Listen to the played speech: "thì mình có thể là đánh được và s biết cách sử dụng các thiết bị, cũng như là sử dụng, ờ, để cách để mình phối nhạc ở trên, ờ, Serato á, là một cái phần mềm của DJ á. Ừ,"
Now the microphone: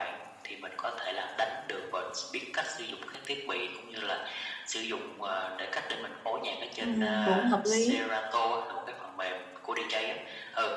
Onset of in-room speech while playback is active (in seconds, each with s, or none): 6.8 s